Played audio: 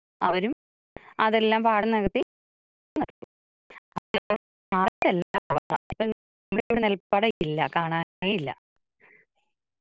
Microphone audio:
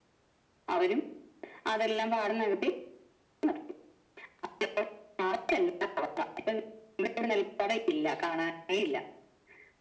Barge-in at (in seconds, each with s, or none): none